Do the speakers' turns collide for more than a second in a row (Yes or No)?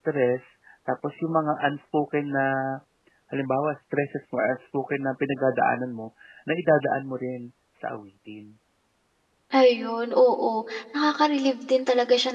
No